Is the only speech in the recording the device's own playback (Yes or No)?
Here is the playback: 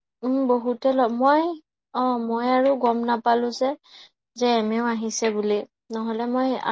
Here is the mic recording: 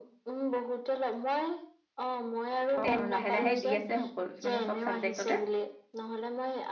No